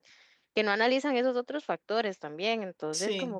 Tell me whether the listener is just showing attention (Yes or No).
Yes